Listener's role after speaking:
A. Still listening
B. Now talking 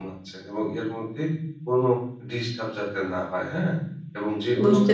A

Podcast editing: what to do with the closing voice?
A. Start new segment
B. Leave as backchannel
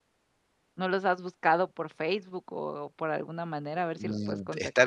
A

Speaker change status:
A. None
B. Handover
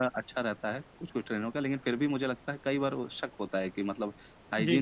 A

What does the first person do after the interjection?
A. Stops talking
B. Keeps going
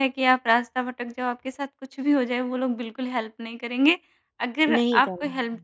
B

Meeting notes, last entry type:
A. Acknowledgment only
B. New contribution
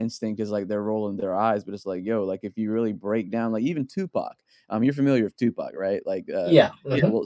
A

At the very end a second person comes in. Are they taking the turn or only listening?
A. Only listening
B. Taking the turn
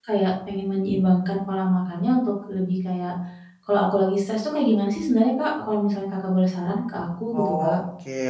B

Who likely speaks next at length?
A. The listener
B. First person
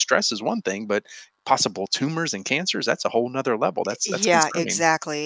A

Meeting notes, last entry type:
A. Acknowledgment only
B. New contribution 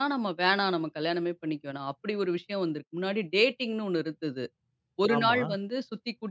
A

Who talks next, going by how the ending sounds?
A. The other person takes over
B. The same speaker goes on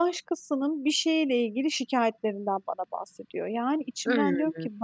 B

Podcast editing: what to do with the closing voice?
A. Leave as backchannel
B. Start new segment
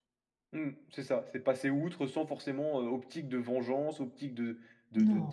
A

